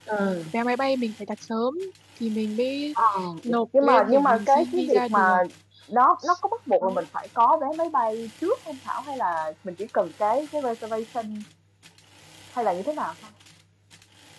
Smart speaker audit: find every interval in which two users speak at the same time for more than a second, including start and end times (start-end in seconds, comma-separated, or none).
3.5-5.4